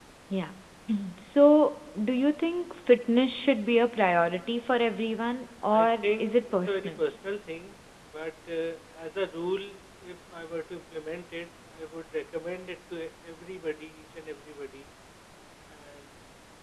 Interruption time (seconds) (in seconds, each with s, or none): 5.7 s